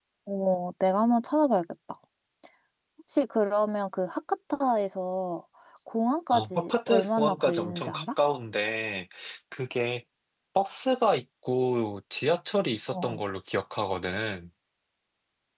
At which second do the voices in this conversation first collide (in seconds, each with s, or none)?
6.3 s